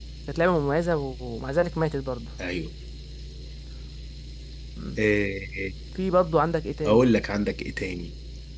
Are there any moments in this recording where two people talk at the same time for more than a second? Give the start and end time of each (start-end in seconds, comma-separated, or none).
none